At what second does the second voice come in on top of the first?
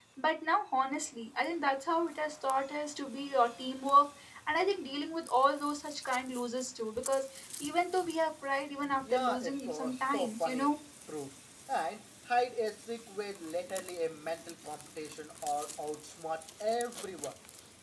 9 s

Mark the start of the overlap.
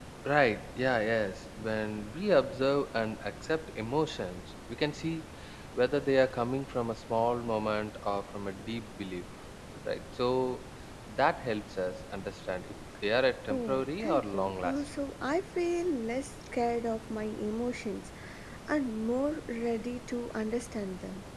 14 s

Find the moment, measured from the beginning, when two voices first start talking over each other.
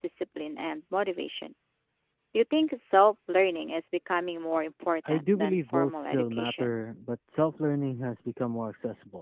5 s

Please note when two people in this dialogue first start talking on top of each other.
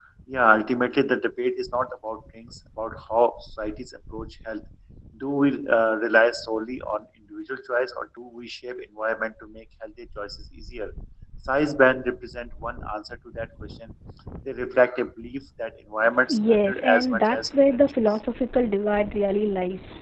16 s

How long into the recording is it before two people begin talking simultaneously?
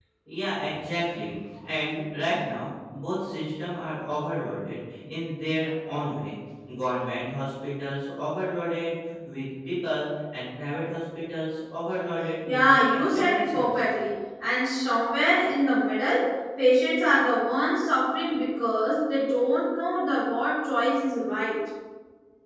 12 s

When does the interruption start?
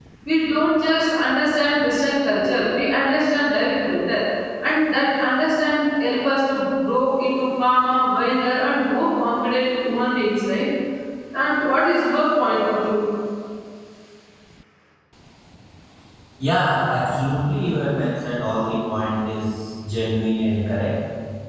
none

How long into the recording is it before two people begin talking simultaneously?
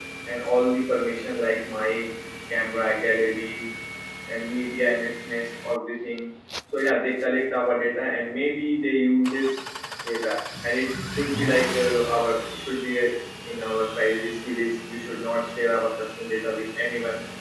none

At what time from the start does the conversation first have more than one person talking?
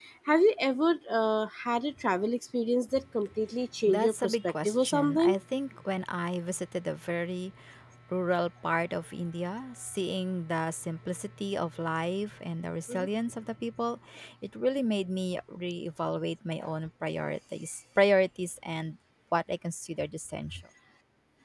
4 s

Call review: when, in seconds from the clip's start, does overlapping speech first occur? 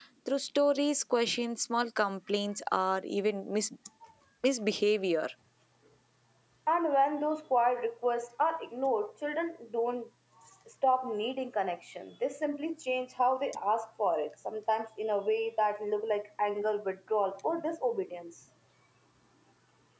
none

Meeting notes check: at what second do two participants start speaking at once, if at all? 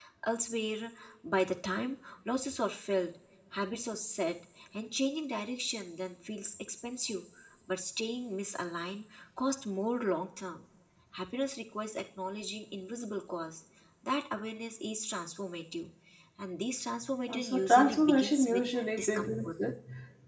17 s

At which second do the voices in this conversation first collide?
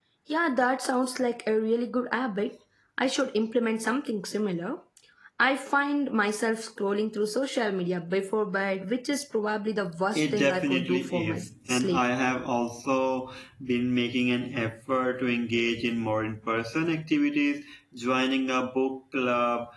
10 s

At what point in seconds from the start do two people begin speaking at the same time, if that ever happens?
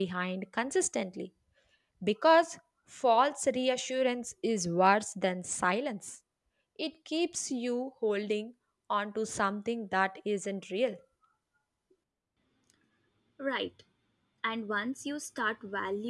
none

